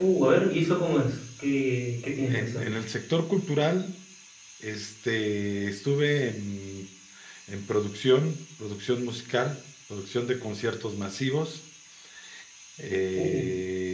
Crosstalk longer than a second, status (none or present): none